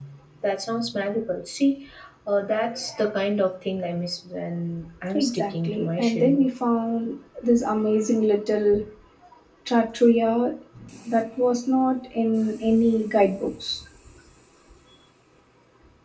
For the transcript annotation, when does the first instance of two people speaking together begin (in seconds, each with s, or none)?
5.1 s